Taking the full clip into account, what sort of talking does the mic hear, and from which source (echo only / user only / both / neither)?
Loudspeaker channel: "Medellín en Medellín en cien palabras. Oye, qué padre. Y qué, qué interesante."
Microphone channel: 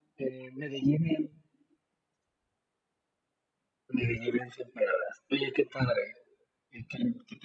echo only